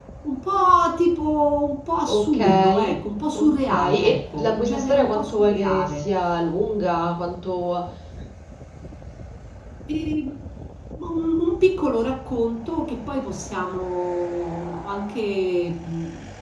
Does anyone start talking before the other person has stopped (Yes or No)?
Yes